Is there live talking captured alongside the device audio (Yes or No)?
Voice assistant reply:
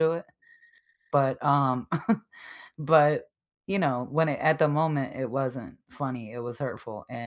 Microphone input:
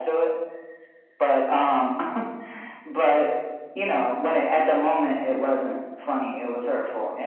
No